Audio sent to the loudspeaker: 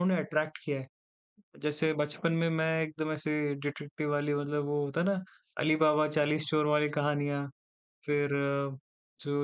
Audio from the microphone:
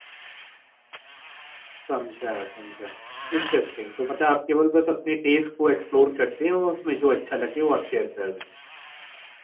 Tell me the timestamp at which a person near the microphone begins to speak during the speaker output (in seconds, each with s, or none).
1.9 s